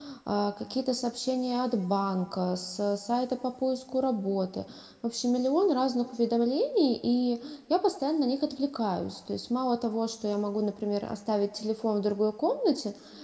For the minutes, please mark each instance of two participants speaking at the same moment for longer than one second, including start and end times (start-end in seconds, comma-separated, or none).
none